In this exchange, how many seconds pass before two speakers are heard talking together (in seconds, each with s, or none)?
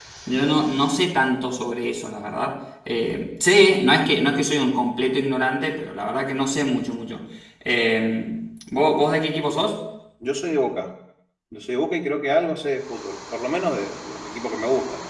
none